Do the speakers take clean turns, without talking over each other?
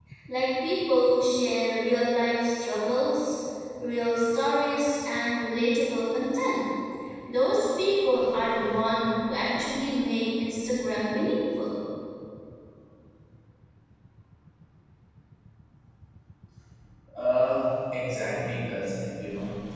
Yes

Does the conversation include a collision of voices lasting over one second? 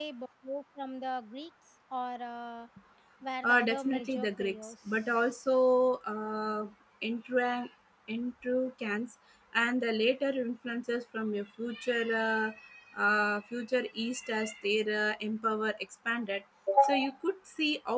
Yes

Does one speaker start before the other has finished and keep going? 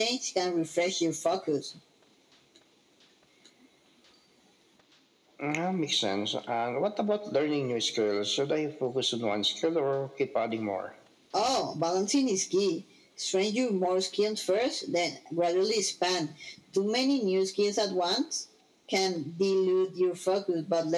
No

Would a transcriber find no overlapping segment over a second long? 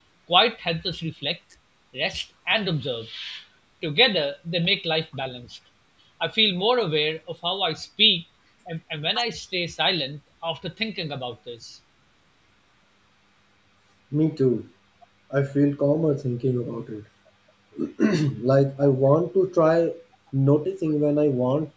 Yes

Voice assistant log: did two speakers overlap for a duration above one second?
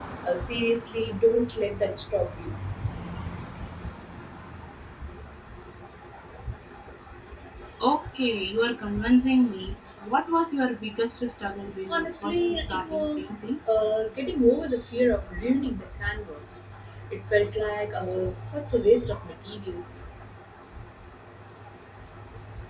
Yes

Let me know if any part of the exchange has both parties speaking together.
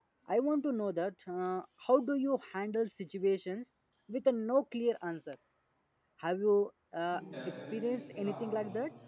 Yes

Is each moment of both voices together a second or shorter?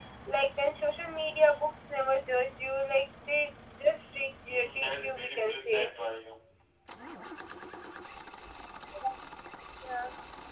No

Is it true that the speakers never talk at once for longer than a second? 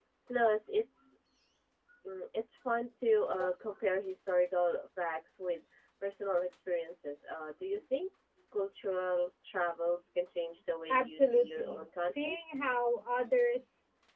No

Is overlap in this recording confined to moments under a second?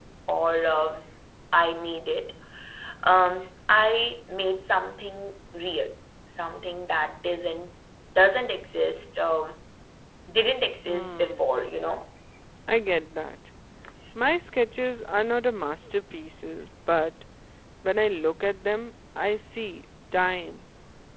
Yes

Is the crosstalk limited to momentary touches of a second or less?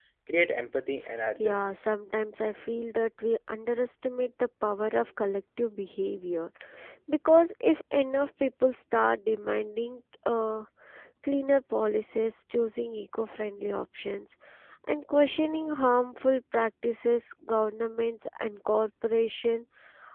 Yes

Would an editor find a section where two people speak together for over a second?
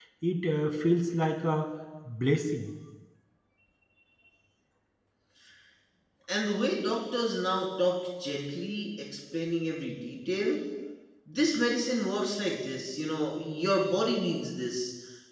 No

